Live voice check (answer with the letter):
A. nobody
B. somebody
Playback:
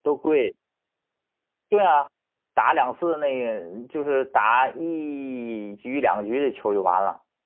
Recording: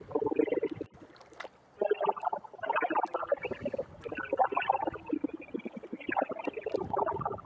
A